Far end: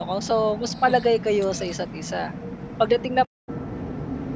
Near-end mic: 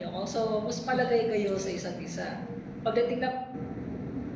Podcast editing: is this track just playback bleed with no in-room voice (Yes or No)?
Yes